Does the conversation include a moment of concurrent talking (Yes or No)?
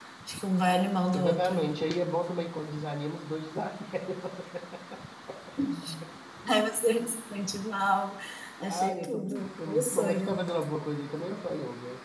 Yes